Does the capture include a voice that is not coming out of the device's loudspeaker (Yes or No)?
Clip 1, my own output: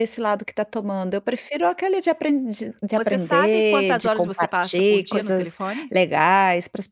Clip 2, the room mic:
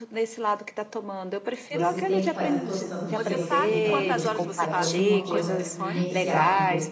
Yes